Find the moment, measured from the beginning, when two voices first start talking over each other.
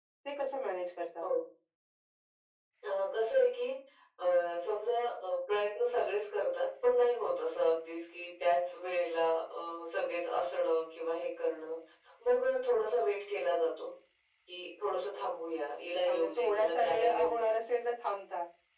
16.1 s

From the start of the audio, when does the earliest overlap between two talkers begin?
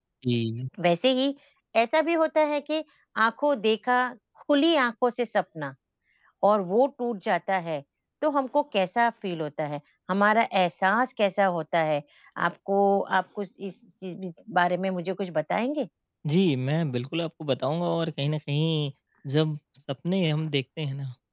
none

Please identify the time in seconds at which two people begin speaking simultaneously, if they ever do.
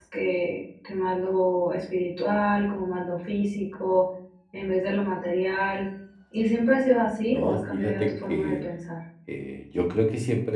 7.3 s

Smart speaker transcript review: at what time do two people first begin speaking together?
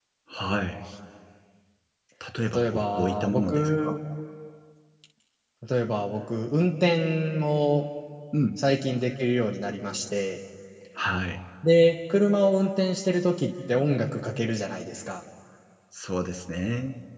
2.5 s

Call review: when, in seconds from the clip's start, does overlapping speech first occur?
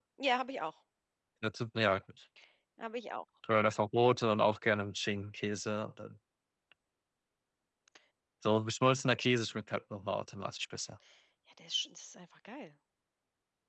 none

